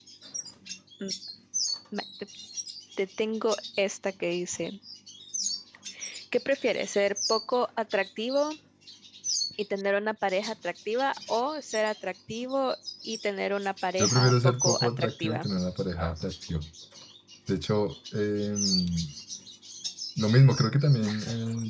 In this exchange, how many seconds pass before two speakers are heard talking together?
14.0 s

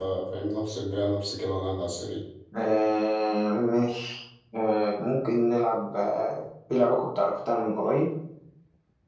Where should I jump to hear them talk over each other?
none

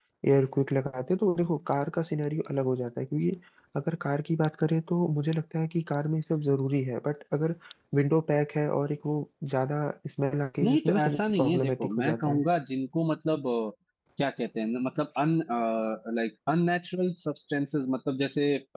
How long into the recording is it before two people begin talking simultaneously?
10.6 s

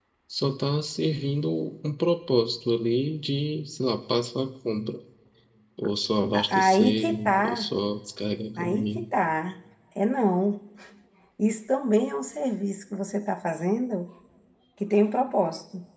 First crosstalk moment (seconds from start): 6.3 s

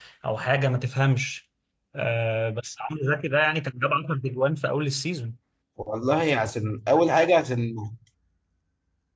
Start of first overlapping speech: none

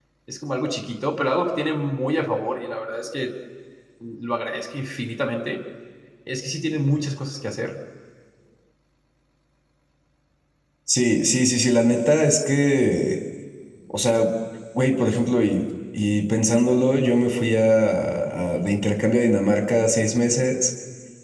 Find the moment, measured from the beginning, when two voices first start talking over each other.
none

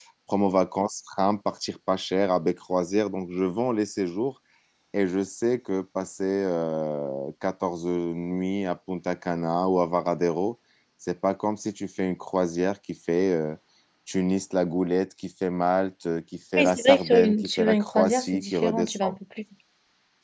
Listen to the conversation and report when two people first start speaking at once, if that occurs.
16.6 s

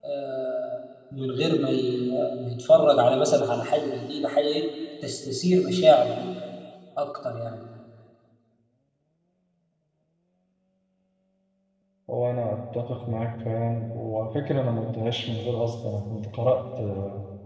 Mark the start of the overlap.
none

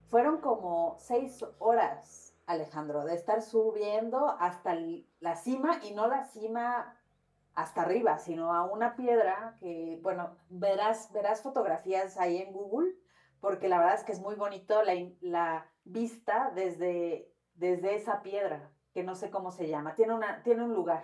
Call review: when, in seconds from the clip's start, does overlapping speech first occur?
none

